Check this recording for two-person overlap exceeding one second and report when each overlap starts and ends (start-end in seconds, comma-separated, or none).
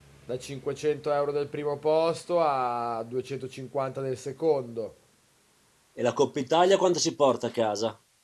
none